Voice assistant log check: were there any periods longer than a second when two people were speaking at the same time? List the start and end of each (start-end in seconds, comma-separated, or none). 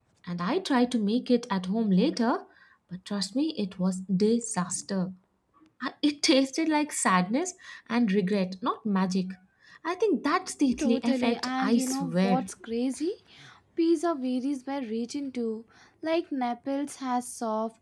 10.8-12.5